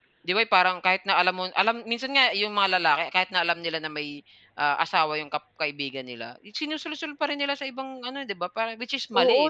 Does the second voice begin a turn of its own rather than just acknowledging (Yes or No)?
Yes